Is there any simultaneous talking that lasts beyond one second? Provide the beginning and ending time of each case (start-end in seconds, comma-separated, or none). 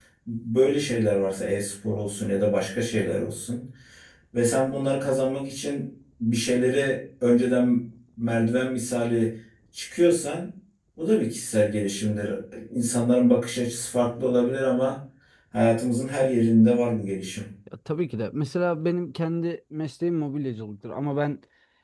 none